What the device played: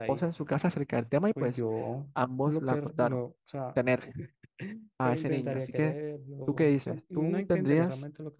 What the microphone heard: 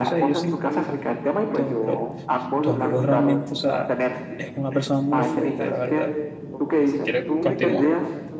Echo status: present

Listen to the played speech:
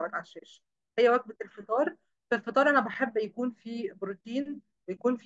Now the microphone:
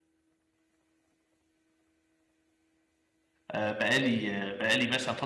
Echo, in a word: none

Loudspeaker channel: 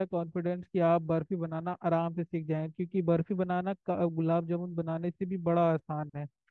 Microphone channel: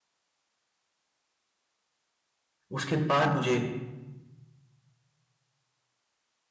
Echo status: none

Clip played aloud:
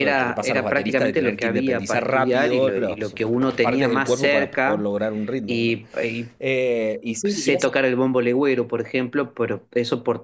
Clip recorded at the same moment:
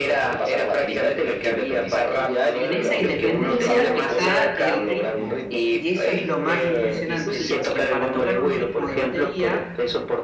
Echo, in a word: present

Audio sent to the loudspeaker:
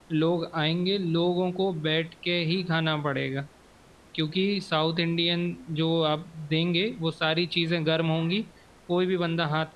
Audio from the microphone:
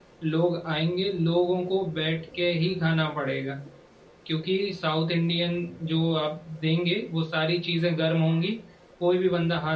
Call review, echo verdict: present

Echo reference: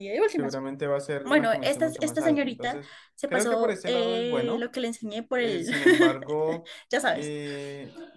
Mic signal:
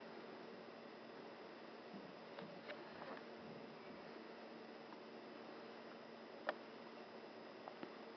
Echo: none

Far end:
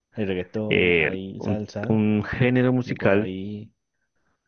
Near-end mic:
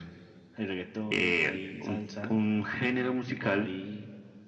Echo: present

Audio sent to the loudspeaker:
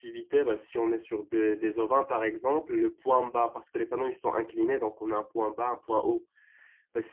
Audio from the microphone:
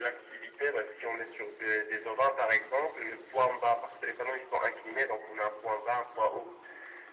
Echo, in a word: present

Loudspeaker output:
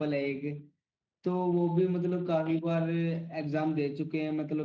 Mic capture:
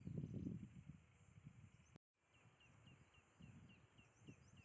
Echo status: none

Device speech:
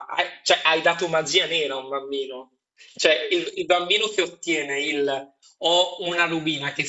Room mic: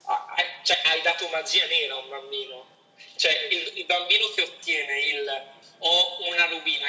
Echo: present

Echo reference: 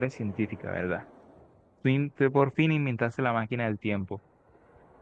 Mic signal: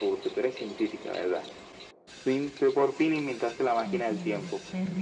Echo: present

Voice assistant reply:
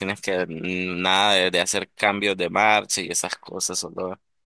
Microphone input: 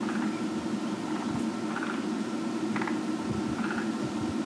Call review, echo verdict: none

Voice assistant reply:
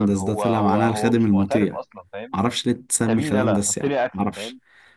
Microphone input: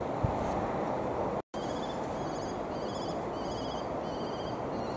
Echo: none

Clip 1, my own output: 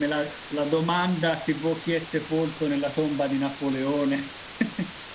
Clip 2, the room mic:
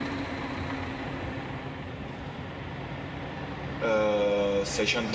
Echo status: none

